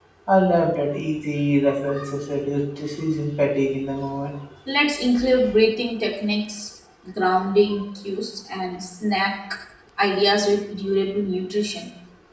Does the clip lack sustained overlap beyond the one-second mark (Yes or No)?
Yes